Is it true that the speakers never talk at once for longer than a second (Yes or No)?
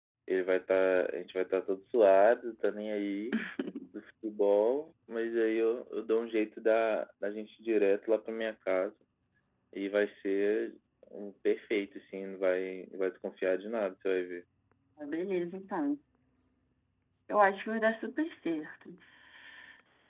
Yes